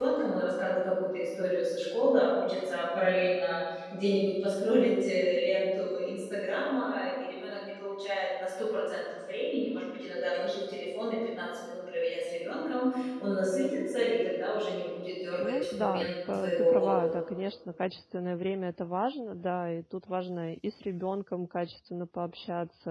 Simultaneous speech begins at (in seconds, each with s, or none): 15.4 s